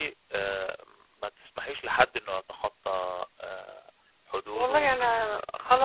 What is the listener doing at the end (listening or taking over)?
taking over